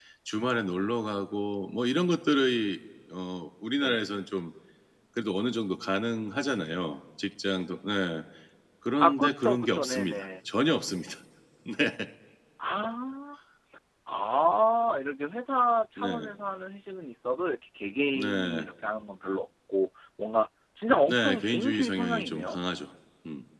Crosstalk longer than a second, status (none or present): present